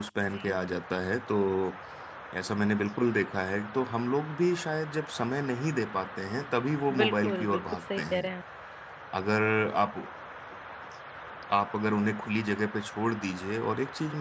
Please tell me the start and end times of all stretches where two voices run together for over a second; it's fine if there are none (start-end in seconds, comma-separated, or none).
7.0-8.3